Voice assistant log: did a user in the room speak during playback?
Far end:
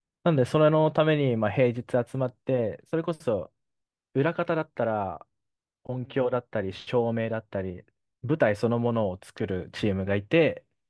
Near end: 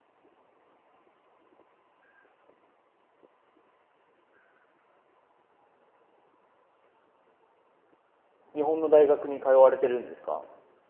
Yes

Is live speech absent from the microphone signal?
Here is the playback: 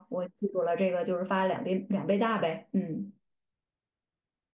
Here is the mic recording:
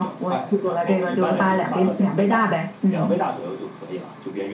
No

